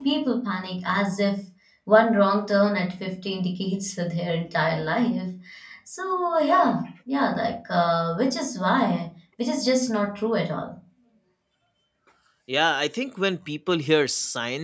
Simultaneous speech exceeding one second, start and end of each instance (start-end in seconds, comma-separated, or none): none